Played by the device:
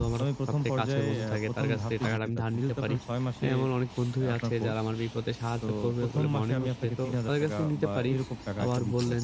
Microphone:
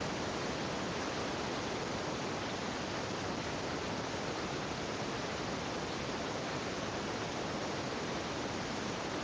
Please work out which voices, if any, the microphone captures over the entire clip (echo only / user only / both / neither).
neither